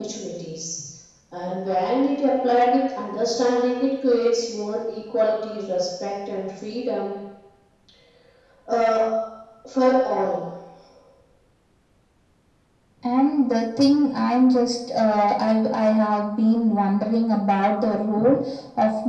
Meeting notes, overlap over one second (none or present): none